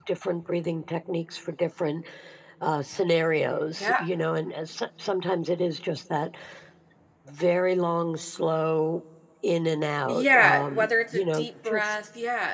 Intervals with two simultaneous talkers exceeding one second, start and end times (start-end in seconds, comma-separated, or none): 10.1-11.9